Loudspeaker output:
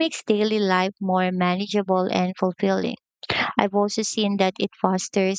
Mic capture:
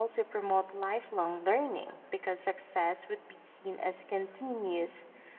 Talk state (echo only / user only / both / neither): user only